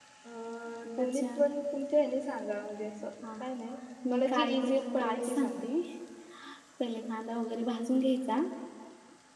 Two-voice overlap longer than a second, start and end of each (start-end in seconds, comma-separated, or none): 4.1-5.7